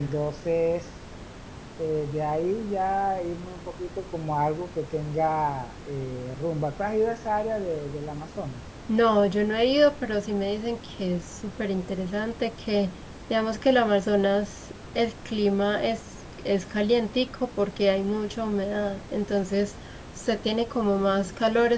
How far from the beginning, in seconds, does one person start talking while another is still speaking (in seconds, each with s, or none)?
none